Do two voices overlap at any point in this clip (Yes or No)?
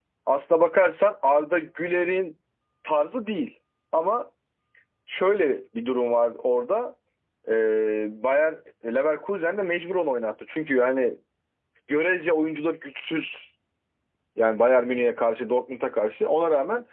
No